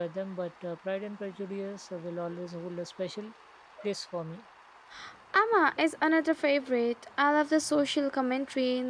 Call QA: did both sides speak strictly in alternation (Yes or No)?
Yes